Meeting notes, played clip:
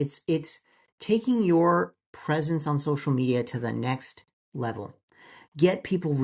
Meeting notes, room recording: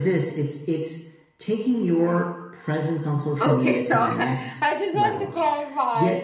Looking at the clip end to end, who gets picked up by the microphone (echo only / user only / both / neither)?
both